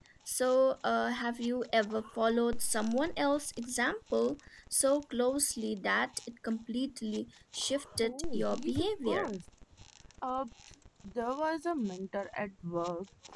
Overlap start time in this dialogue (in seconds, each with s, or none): 8.0 s